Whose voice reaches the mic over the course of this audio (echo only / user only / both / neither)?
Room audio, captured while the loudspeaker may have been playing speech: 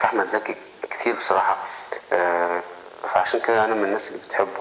echo only